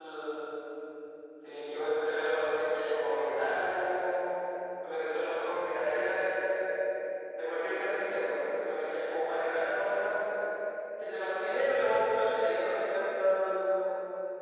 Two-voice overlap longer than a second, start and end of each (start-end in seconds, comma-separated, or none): 11.5-12.7